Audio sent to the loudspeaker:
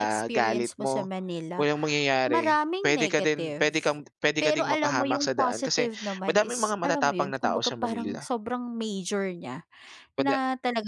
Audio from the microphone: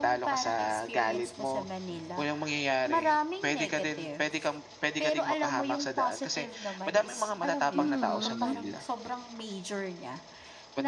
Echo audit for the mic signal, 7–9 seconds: both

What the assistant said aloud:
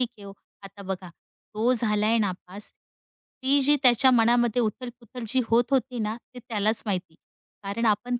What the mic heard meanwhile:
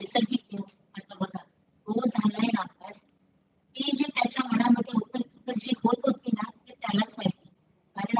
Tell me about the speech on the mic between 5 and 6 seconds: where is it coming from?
echo only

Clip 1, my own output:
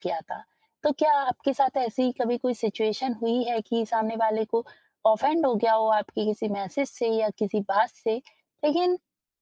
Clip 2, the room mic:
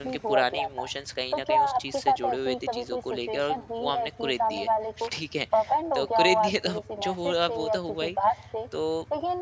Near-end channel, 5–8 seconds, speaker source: both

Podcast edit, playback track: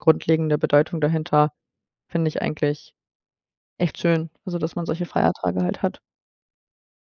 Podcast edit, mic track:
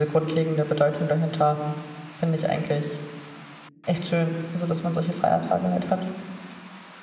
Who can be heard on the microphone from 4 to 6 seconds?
echo only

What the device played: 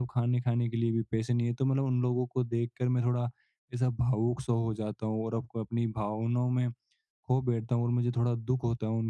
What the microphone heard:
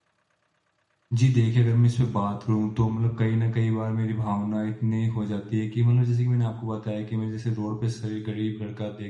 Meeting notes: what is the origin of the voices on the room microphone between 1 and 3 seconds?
user only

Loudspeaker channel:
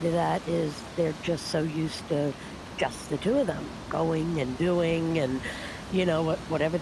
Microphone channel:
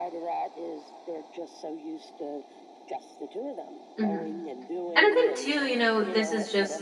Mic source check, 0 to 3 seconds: echo only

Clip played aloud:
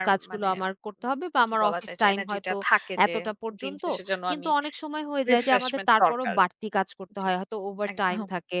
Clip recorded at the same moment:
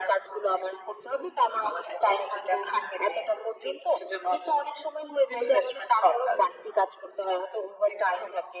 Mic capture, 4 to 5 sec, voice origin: echo only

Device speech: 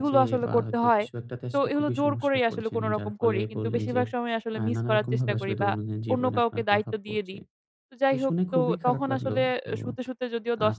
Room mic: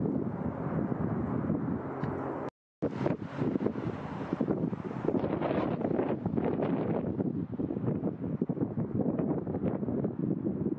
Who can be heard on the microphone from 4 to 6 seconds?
neither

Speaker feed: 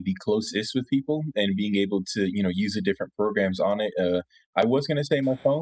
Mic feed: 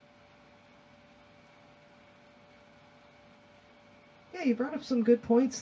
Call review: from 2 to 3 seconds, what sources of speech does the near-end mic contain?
neither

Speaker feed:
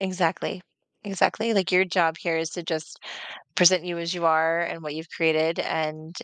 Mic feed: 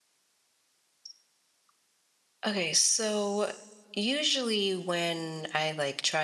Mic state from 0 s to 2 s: neither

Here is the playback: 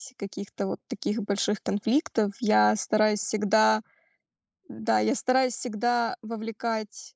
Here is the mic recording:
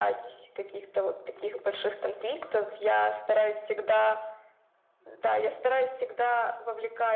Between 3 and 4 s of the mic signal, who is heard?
echo only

